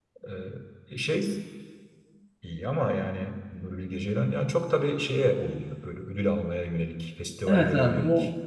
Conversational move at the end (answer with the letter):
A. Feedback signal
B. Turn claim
B